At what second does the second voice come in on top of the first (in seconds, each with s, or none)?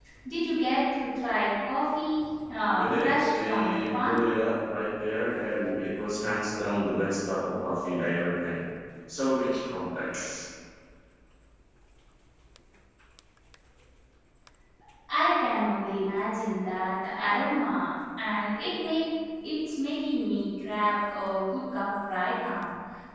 2.8 s